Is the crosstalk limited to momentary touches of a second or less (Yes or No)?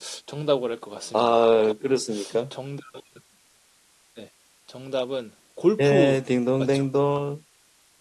Yes